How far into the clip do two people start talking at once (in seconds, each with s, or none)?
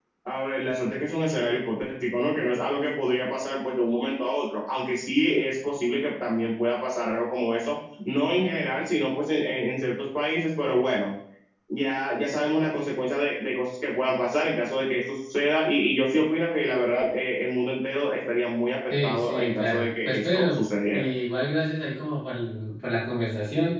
18.9 s